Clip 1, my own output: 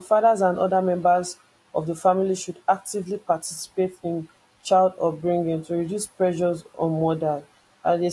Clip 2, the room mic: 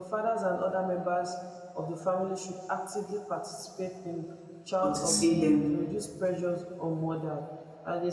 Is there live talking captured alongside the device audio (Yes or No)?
Yes